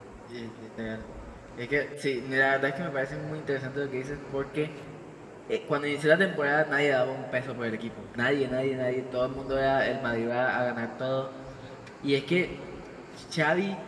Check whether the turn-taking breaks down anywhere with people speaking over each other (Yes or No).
No